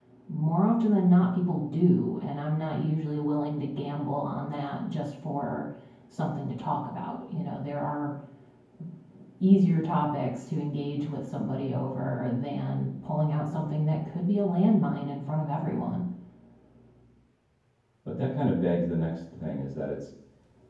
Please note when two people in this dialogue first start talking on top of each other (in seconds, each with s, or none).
none